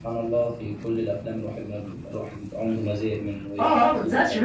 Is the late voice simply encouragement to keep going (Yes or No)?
No